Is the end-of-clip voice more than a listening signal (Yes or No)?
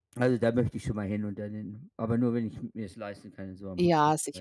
Yes